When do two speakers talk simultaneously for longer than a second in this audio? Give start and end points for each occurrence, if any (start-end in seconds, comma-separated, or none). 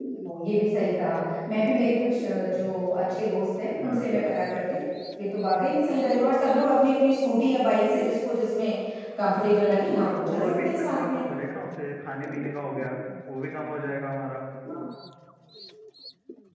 9.9-11.2